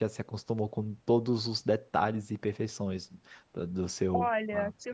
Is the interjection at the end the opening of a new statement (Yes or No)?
Yes